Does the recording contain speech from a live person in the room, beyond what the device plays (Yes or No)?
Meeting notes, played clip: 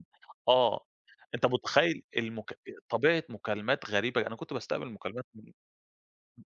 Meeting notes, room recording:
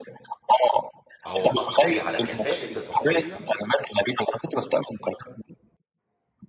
Yes